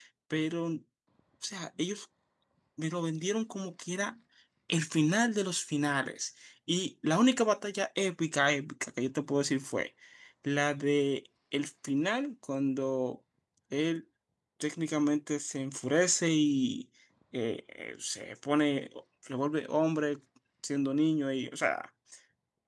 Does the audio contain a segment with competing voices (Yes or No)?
No